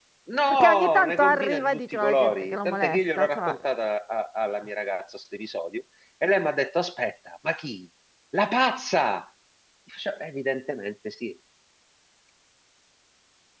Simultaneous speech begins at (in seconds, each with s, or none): 0.5 s